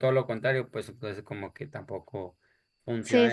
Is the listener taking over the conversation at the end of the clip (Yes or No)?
Yes